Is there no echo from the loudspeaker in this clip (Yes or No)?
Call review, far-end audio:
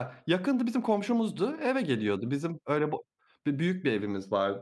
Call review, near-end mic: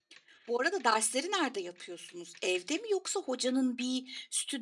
Yes